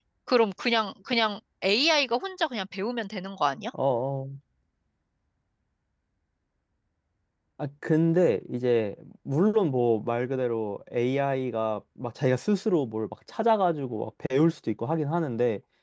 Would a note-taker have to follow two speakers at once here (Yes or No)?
No